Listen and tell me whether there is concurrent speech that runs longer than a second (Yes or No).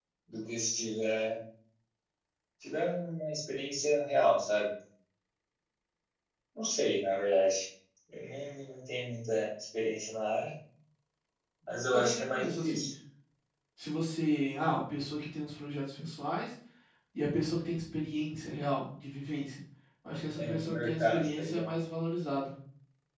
Yes